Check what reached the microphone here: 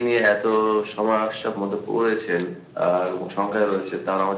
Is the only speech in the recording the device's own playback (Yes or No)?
Yes